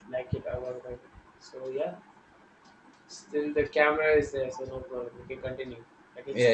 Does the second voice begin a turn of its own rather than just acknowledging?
Yes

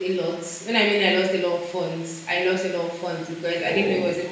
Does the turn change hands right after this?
No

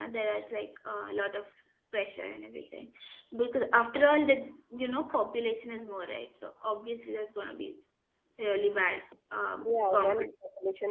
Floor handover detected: Yes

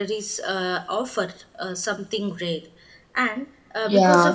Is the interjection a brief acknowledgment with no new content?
Yes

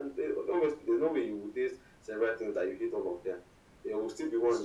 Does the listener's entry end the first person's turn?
No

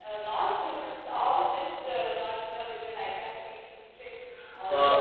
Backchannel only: Yes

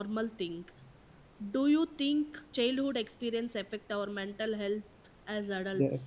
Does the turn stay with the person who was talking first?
No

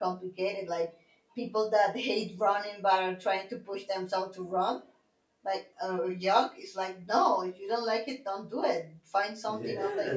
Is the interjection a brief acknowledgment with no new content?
No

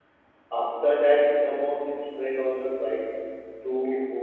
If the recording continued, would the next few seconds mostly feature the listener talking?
No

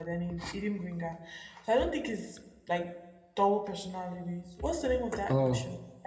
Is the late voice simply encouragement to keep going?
Yes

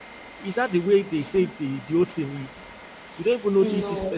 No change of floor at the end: Yes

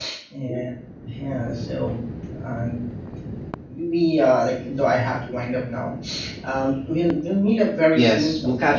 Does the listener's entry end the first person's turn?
Yes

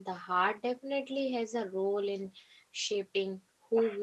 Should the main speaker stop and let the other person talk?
Yes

